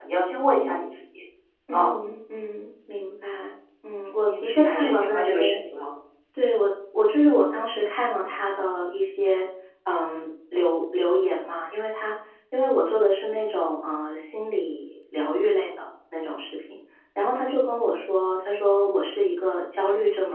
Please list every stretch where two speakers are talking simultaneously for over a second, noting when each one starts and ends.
4.3-5.6

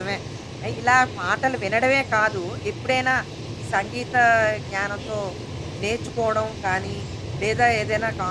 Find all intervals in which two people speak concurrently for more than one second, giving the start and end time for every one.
none

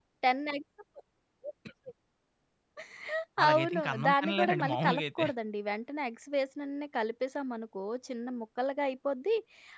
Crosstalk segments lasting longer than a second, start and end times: 3.5-5.2

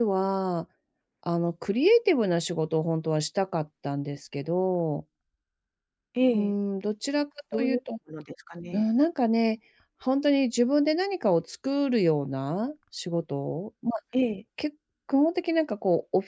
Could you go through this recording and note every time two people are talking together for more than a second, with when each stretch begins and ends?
none

